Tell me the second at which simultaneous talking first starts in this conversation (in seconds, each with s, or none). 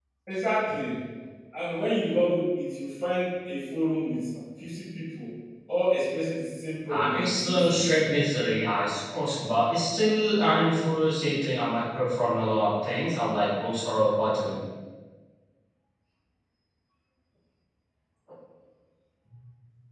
6.9 s